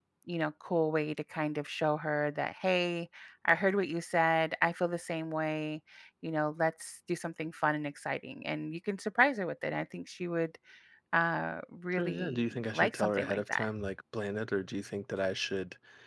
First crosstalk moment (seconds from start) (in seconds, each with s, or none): 11.9 s